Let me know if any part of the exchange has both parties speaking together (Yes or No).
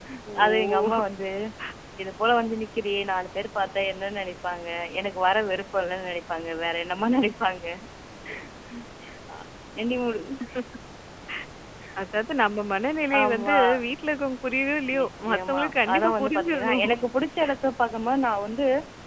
Yes